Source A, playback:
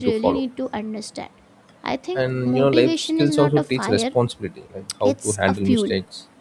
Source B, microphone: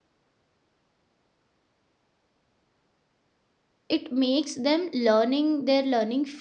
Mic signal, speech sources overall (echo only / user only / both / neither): user only